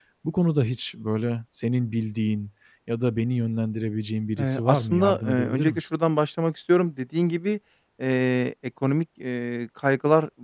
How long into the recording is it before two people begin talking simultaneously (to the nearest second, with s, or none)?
4 s